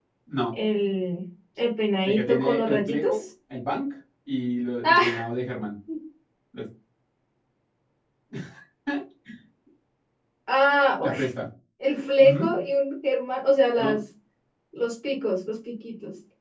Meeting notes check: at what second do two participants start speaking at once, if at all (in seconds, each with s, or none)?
2.0 s